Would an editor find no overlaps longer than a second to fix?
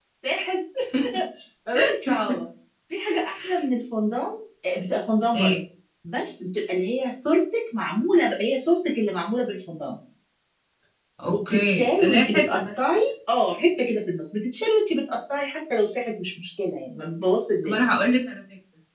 No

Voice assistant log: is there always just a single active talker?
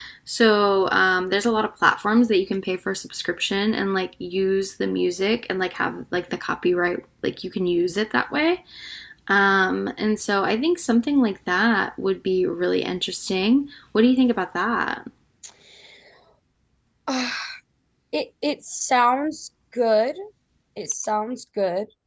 Yes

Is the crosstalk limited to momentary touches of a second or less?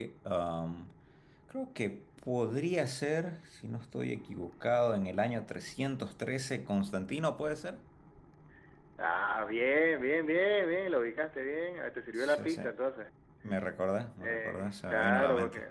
No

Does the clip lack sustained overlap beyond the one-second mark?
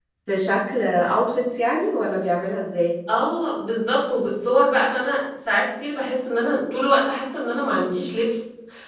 Yes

